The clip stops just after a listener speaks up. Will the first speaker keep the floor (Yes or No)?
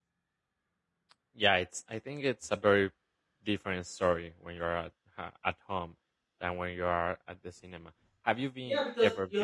No